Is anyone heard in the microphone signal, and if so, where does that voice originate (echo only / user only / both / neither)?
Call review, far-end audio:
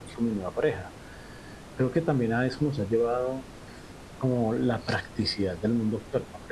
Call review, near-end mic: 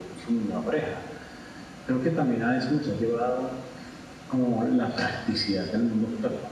echo only